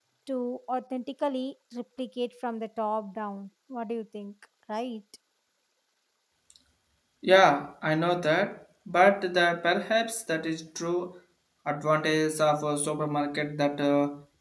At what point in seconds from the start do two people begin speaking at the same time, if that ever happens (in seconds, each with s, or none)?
none